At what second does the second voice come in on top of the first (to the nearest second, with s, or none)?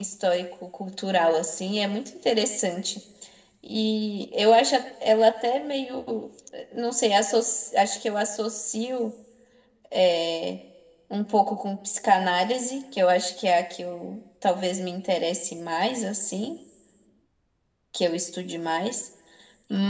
none